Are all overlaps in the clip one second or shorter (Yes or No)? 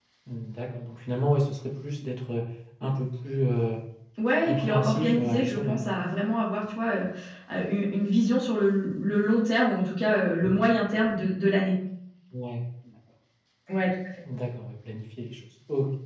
No